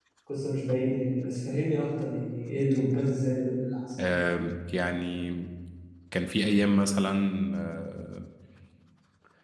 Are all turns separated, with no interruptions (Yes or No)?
Yes